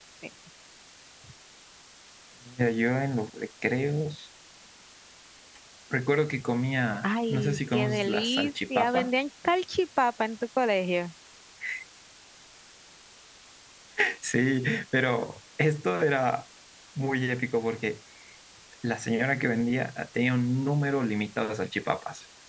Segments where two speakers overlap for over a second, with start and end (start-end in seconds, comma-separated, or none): 7.0-9.1